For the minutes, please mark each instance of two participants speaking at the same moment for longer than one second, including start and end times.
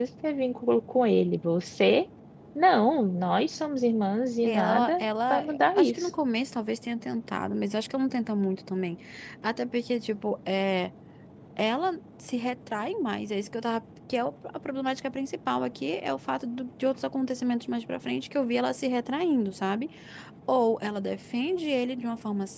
4.4-6.1

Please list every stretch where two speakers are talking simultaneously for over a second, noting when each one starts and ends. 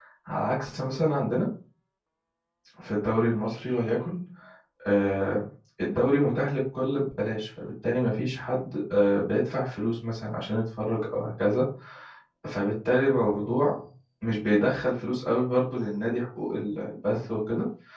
none

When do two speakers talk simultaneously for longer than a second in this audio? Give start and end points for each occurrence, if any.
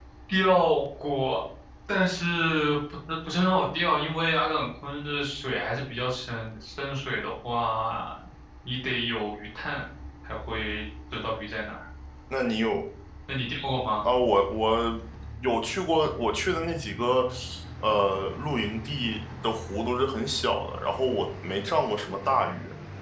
none

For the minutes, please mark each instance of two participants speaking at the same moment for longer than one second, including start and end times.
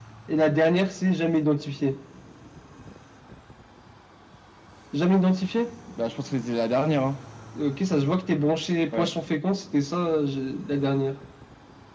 none

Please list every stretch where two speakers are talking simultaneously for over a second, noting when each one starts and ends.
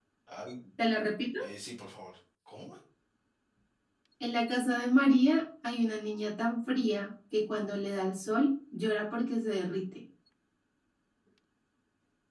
none

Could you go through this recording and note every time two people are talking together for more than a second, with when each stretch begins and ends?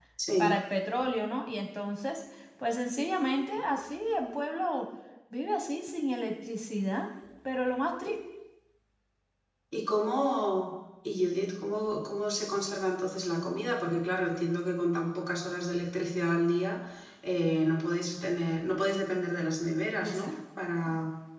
none

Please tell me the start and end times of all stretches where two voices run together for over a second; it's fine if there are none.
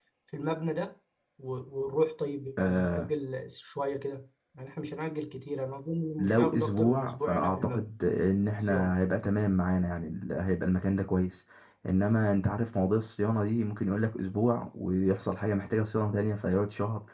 6.2-7.9

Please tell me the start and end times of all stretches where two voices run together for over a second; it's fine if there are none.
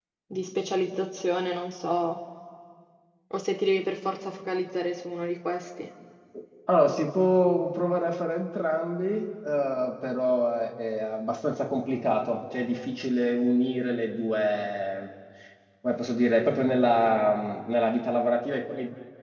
none

